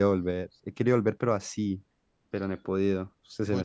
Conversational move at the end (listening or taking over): taking over